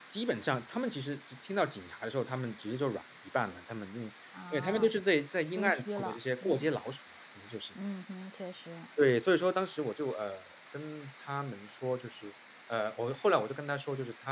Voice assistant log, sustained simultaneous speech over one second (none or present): present